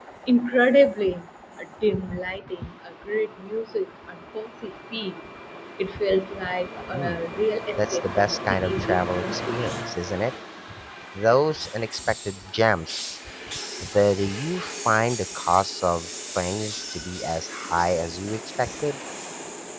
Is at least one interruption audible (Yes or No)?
Yes